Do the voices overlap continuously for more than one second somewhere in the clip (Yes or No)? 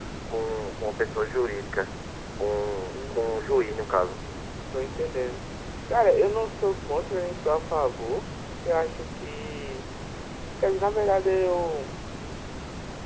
Yes